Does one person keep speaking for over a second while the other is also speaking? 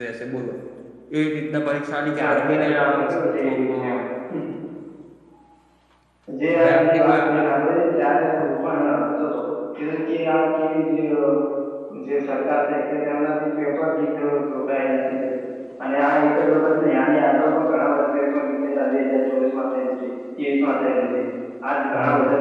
Yes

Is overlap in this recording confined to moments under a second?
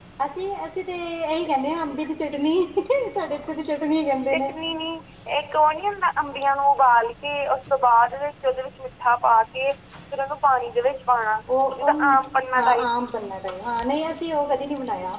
Yes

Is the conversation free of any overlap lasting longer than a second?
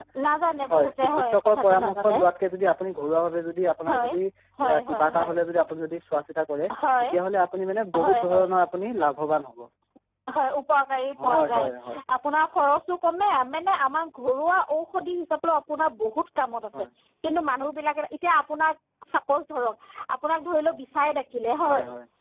No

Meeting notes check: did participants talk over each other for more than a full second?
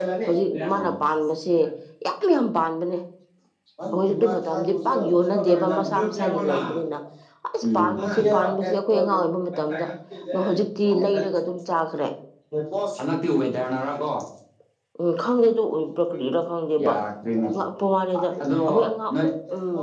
Yes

